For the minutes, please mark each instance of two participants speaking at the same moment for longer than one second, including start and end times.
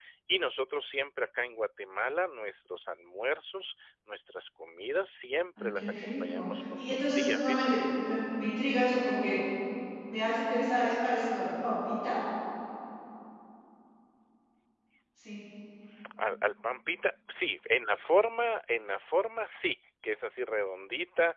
5.6-7.7

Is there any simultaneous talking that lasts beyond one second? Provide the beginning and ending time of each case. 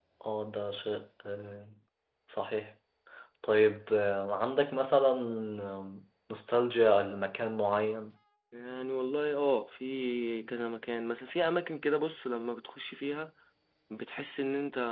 none

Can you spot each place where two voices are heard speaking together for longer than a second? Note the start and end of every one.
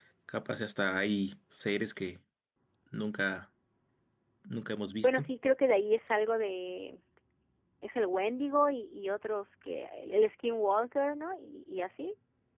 none

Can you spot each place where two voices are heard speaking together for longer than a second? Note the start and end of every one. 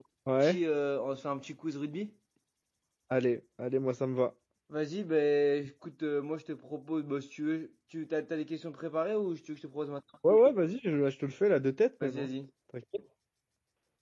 none

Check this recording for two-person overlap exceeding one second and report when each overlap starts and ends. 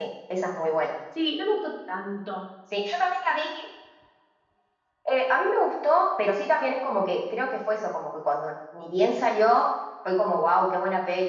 none

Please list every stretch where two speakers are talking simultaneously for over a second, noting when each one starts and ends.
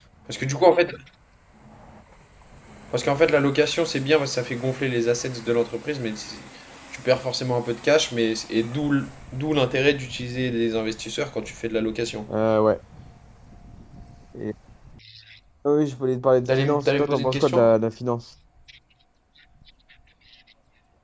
16.5-17.7

